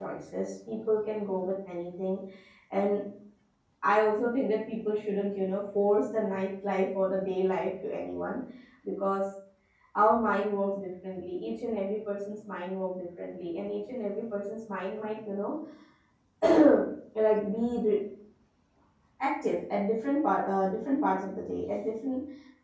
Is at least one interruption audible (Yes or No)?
No